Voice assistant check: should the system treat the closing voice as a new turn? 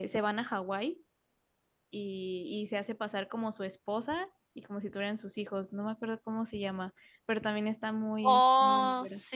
Yes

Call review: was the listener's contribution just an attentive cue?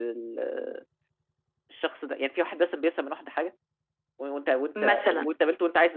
Yes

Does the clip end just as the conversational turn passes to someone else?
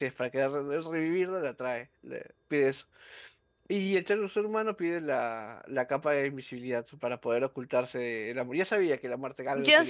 Yes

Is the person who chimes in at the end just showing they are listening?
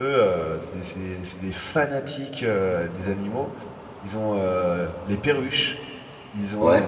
Yes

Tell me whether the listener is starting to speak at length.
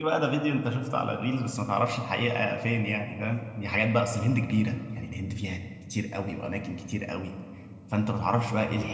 No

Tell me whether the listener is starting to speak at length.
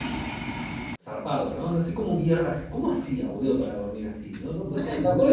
No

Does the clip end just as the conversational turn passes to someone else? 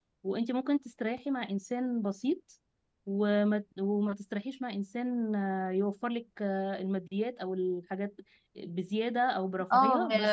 Yes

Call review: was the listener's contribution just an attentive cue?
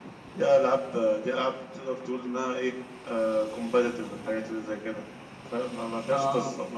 Yes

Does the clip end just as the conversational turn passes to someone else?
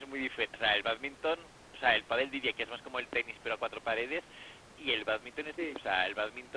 No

